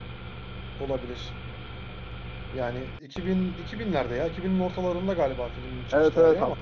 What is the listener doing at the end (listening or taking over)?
taking over